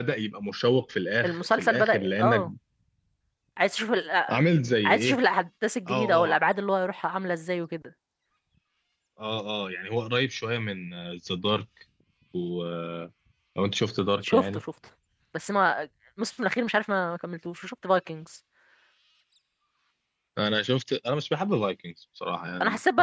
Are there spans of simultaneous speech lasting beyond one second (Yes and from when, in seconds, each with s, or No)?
Yes, from 1.2 s